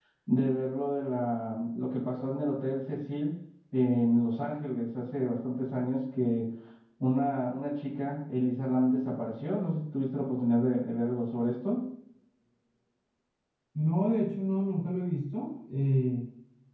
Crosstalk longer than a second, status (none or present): none